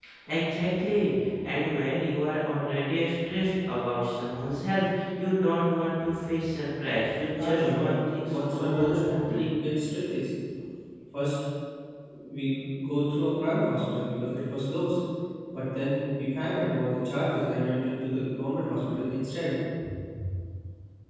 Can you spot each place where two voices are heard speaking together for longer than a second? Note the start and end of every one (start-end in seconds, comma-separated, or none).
7.3-9.5